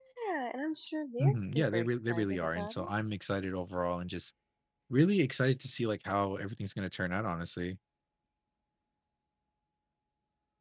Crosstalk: present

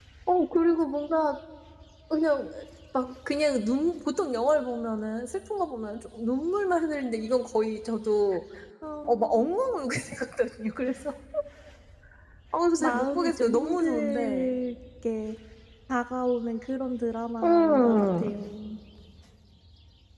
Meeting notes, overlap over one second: present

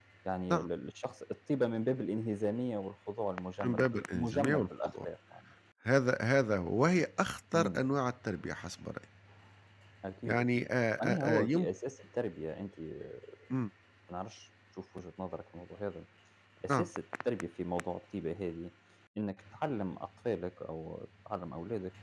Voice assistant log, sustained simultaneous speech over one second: present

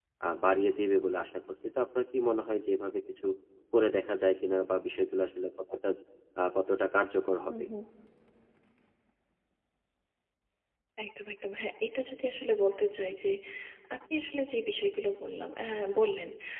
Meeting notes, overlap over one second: none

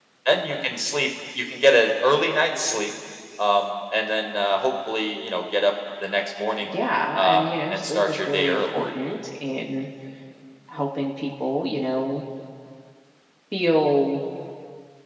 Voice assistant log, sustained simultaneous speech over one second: present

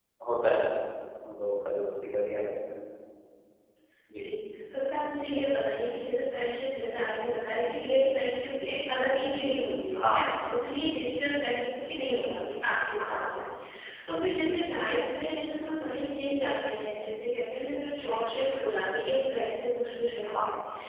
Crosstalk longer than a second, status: none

